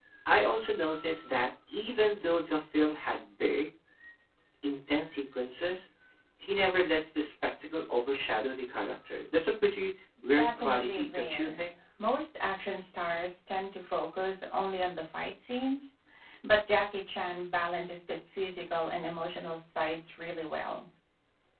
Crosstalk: present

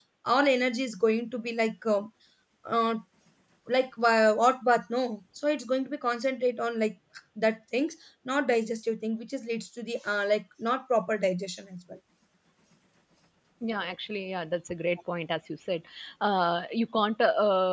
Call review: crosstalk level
none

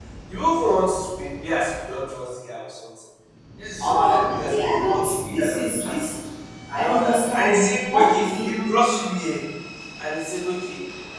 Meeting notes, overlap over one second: present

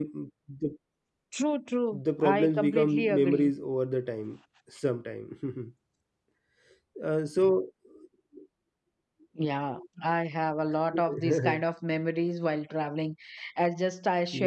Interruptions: present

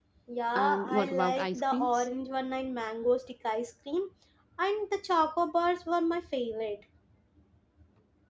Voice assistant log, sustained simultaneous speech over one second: present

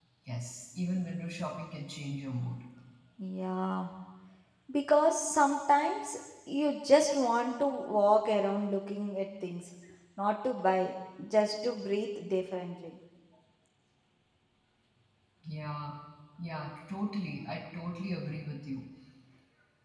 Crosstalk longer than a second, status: none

